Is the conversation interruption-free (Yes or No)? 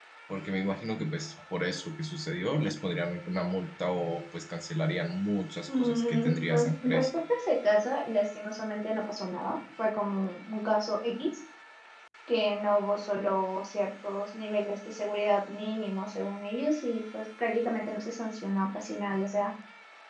No